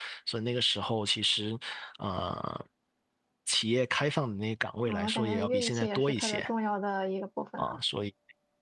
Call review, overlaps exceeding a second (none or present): present